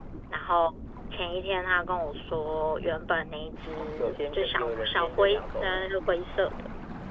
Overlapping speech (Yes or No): Yes